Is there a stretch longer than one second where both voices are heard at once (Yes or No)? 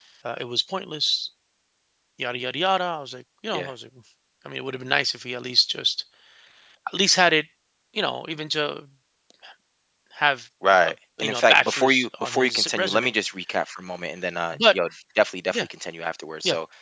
Yes